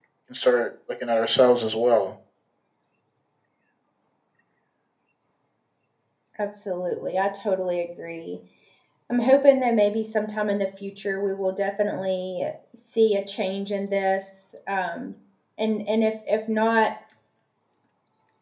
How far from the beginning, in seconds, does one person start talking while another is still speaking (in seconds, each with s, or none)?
none